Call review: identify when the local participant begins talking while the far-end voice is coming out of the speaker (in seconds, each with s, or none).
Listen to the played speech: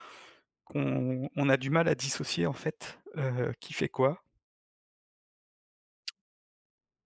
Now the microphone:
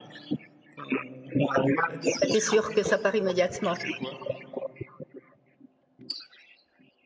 2.2 s